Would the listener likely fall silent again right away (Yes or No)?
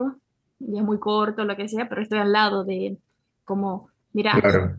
Yes